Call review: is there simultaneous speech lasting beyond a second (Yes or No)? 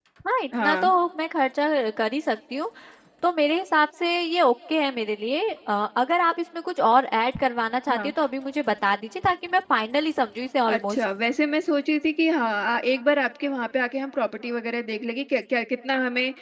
No